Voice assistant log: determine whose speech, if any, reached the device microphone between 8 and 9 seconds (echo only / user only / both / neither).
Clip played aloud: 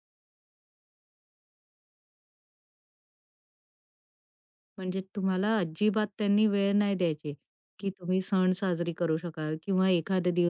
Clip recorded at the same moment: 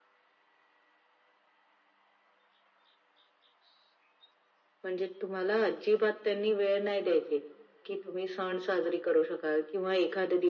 echo only